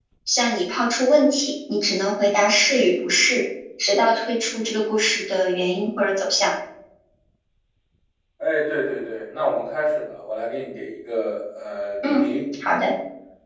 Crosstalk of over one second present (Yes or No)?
No